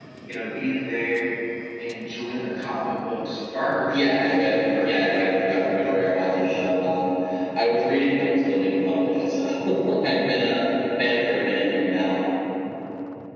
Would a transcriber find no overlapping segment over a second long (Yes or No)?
No